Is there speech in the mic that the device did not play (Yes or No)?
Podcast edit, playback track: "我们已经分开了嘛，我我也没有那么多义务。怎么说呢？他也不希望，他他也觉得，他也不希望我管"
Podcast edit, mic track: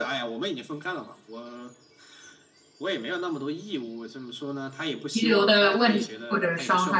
Yes